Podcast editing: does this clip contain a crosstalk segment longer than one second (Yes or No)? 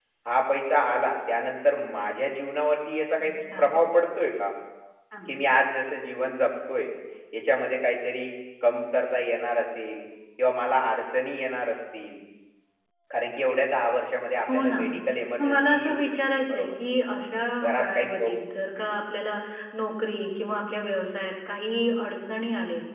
Yes